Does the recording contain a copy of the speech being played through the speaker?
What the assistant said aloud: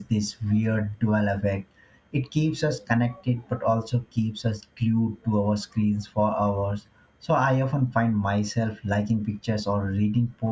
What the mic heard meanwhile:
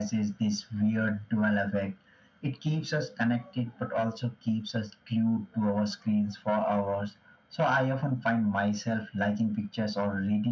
Yes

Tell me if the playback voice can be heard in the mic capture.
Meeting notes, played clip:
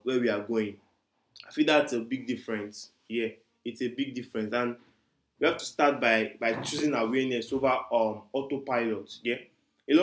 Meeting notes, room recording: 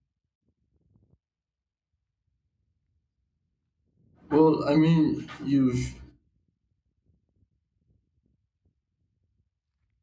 No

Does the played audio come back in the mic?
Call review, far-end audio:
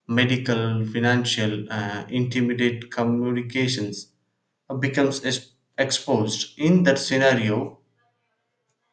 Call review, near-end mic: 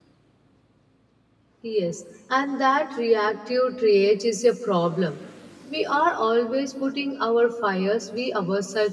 No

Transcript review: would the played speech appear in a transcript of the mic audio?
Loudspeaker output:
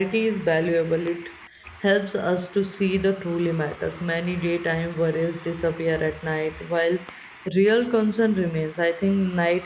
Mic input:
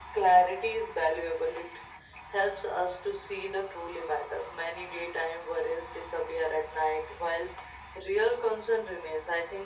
Yes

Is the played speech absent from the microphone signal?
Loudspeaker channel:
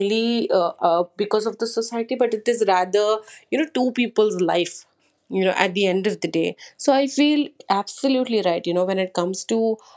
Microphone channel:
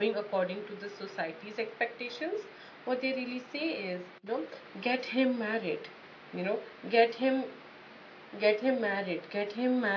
Yes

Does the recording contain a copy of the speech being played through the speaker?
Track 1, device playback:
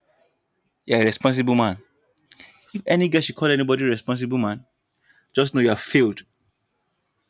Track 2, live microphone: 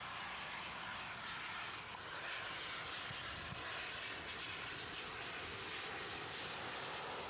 No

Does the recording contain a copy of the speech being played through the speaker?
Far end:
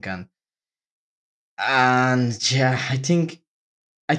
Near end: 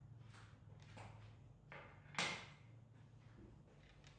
No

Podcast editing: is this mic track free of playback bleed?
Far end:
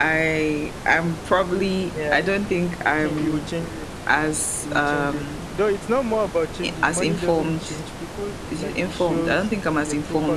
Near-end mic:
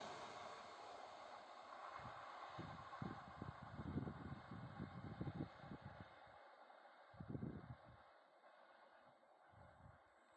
Yes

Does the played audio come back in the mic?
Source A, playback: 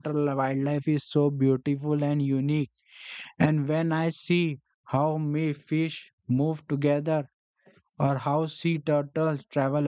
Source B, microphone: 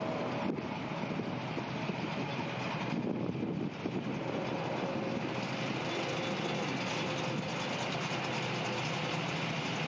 No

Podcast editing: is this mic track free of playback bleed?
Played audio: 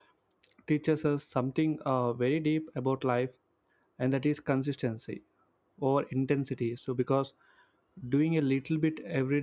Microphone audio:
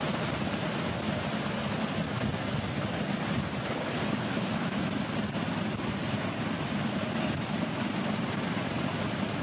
Yes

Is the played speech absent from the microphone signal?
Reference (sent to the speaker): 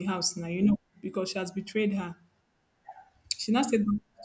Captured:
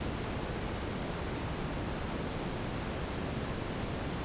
Yes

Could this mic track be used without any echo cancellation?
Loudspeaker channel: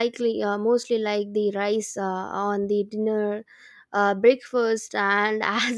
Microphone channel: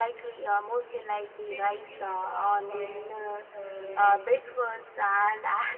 No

